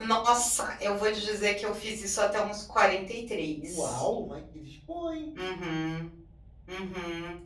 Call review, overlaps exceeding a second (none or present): none